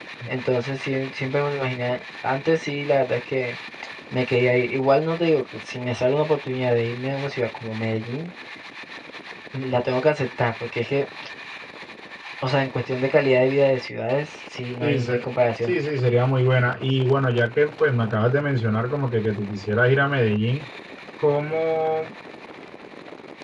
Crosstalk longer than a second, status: none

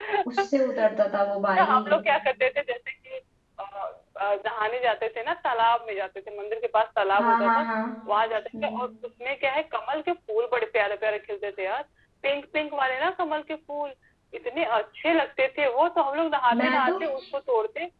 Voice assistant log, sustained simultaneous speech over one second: none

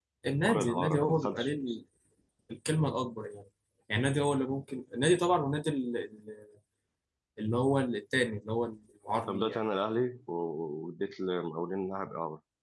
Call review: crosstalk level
present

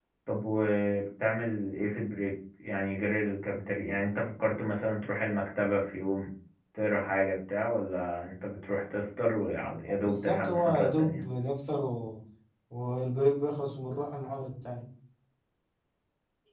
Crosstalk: present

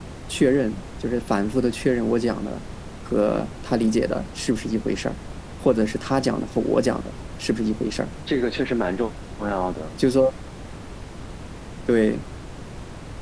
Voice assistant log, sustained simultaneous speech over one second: none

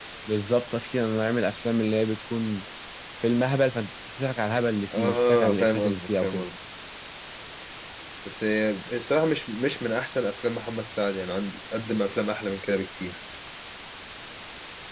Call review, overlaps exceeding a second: present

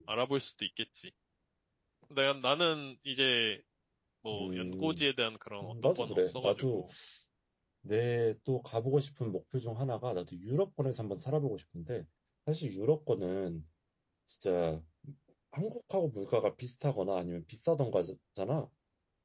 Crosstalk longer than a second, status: present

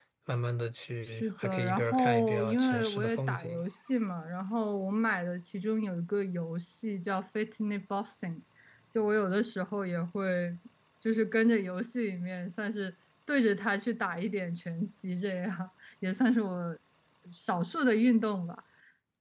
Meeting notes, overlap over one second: present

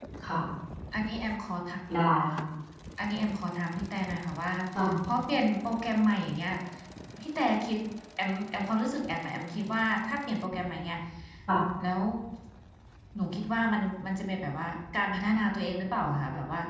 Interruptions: none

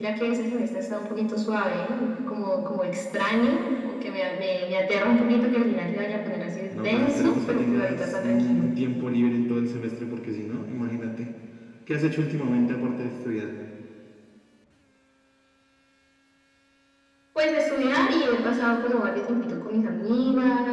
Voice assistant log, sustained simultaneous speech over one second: present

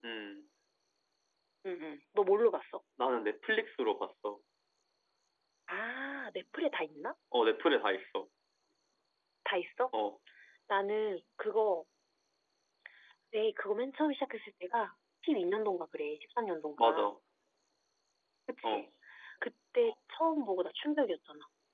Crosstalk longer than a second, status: none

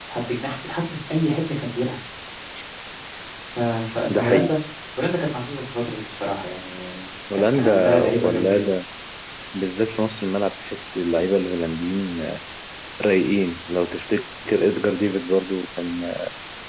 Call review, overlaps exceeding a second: present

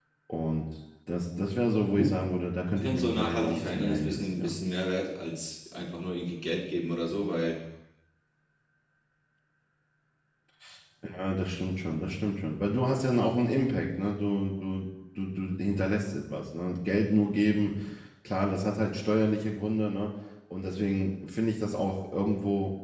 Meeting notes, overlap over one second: present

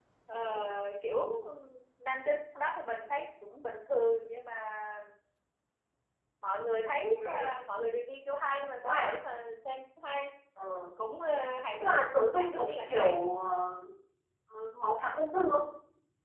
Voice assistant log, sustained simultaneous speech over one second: present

